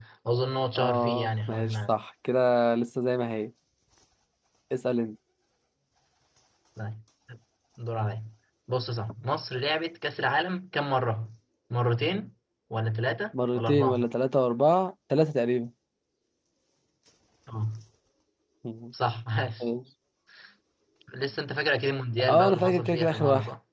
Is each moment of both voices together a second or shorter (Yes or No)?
No